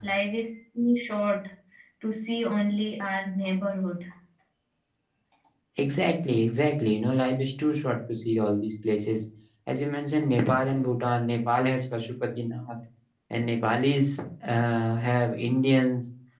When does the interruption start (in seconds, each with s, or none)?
none